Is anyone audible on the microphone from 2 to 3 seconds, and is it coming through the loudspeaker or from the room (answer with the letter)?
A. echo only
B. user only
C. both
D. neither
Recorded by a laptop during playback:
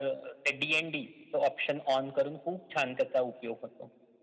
A